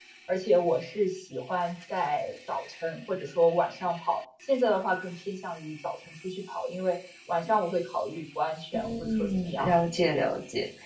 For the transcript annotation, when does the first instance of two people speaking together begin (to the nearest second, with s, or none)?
9 s